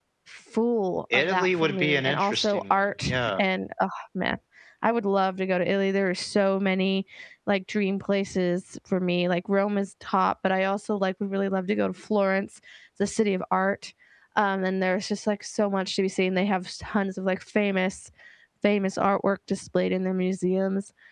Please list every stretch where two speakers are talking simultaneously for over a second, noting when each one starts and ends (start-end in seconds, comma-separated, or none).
1.1-3.4